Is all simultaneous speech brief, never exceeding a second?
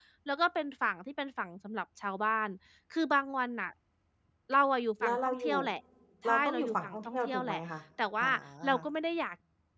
No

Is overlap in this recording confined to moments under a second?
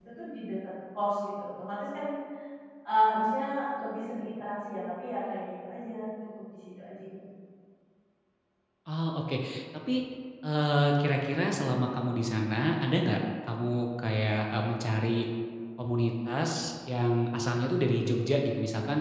Yes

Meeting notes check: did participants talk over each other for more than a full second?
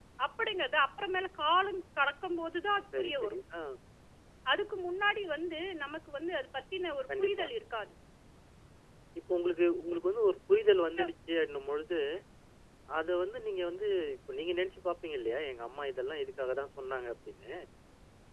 No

